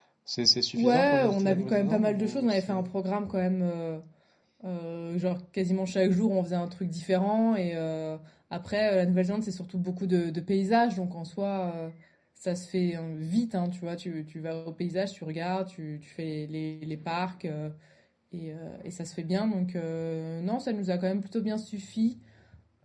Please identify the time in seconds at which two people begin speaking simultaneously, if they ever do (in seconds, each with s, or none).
0.8 s